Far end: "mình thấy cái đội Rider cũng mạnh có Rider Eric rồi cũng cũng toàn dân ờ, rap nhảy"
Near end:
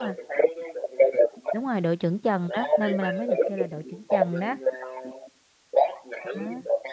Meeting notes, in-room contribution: present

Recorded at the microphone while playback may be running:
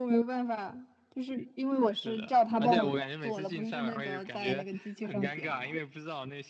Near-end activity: none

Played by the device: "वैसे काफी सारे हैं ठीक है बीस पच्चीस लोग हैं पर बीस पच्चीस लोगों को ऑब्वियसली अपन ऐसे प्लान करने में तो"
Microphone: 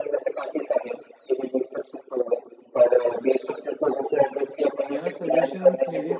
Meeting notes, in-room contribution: present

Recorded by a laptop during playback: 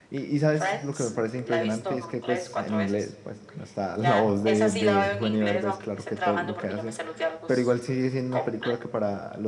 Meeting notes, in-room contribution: present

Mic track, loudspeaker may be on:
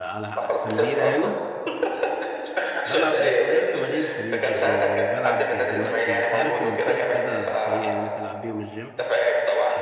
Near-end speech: present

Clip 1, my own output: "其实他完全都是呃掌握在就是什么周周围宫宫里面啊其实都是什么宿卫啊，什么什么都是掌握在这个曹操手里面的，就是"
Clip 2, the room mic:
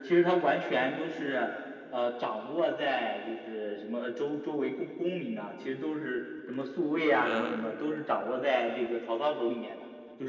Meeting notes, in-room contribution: present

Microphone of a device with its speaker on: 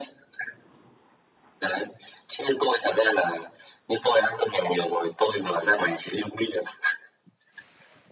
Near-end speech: none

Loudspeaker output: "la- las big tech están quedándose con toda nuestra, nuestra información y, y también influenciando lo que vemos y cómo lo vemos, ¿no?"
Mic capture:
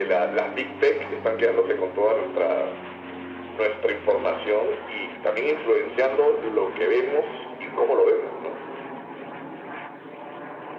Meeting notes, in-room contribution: none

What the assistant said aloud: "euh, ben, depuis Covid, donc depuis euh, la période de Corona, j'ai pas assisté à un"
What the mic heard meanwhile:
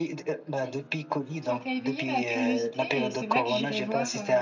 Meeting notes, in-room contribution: present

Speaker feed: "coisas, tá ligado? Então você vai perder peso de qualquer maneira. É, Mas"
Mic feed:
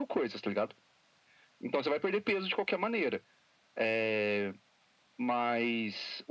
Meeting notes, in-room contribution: none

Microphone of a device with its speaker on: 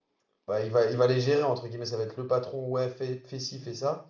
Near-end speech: present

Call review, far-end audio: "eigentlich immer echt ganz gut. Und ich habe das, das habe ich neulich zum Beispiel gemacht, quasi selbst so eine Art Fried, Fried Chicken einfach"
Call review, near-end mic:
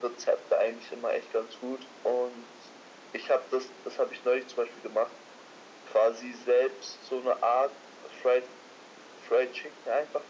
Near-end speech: none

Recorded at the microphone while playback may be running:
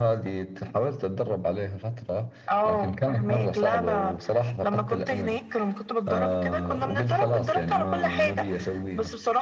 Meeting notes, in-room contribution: none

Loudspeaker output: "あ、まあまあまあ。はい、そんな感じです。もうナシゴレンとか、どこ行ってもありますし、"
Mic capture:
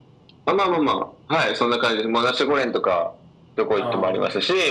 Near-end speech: present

